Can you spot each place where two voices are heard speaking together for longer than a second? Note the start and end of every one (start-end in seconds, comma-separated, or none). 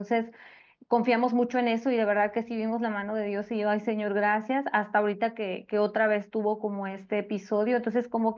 none